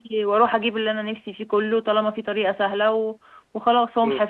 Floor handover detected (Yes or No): Yes